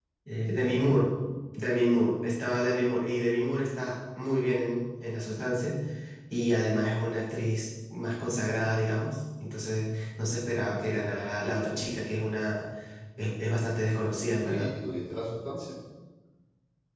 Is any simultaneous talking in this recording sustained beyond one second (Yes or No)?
No